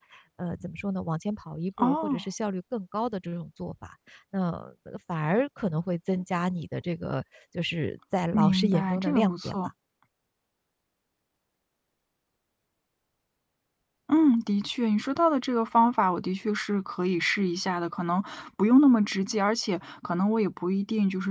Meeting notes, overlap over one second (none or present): present